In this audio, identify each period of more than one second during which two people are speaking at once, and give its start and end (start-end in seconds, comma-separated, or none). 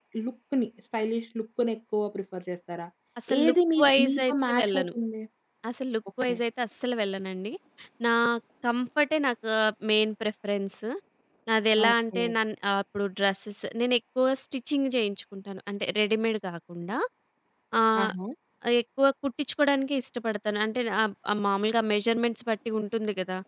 3.4-4.9